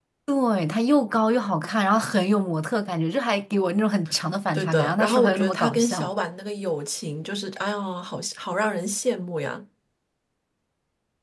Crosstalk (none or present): present